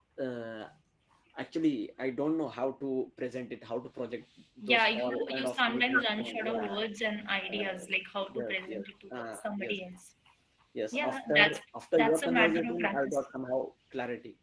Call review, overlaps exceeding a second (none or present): present